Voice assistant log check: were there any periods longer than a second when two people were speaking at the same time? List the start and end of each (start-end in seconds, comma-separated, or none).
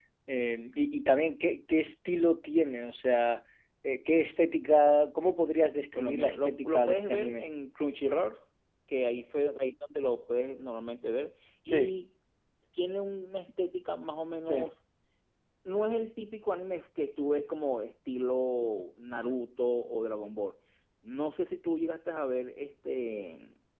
5.9-7.5